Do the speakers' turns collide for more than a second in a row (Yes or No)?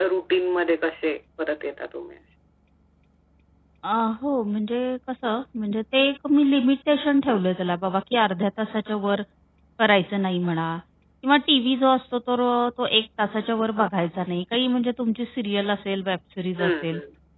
No